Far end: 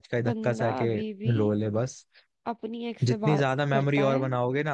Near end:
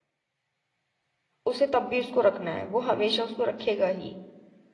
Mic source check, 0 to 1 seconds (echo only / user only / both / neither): neither